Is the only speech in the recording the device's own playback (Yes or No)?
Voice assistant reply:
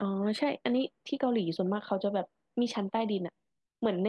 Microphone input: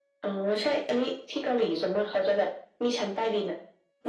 Yes